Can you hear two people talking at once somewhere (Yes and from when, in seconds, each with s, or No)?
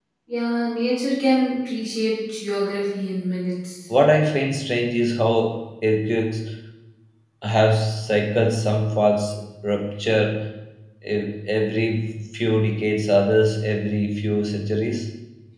No